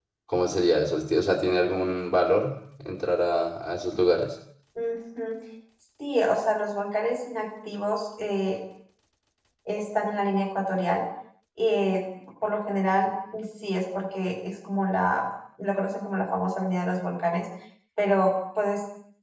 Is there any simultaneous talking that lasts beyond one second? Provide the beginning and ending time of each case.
none

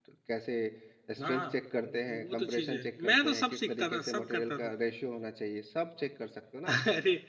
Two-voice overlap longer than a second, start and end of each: 2.1-4.7

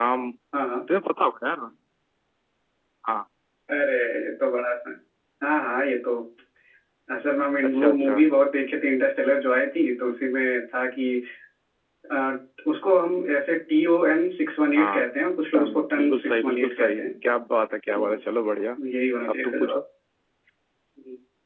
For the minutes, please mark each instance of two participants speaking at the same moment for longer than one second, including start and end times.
15.5-17.1

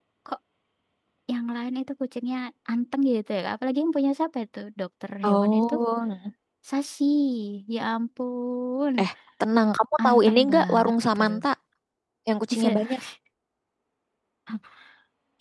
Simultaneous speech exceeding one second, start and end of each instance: 10.1-11.4

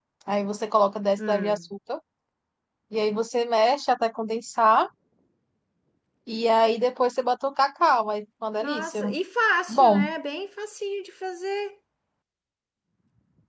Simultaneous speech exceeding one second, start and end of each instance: none

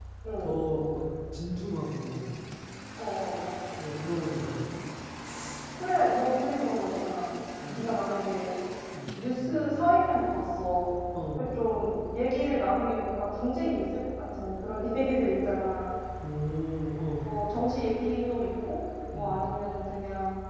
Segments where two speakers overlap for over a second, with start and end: none

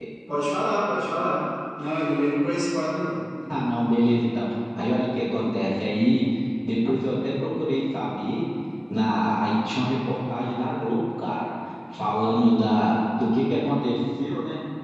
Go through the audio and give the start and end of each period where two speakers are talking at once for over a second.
none

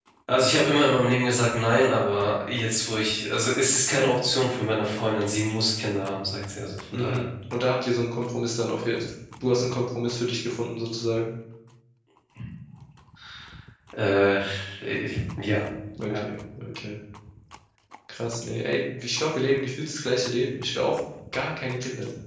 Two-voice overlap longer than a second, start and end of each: none

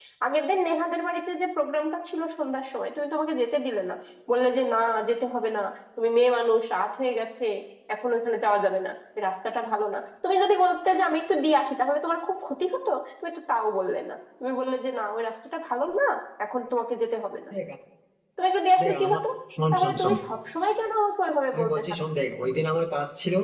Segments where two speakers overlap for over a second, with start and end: none

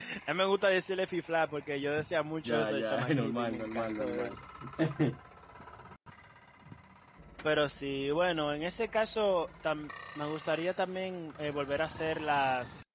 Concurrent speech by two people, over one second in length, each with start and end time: 2.5-4.3

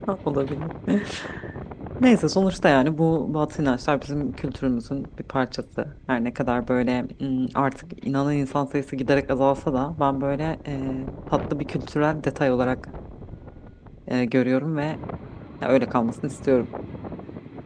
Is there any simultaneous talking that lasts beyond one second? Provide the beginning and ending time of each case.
none

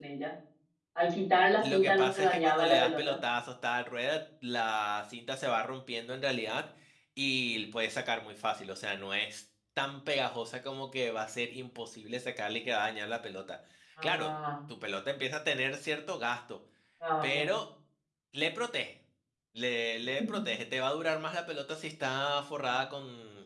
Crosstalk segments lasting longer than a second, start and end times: 1.7-3.1

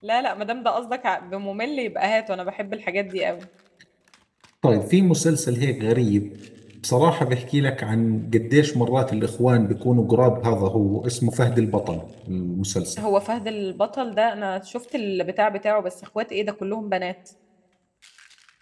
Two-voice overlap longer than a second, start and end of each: none

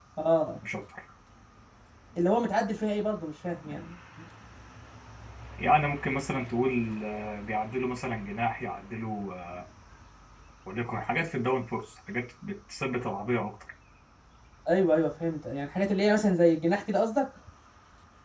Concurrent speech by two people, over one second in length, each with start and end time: none

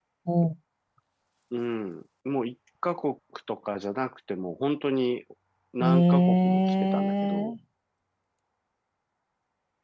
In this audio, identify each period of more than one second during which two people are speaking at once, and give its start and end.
5.8-7.5

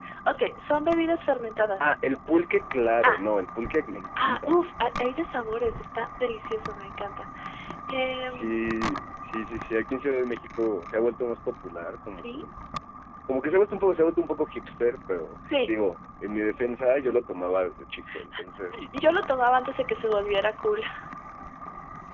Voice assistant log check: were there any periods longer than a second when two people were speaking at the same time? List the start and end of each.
none

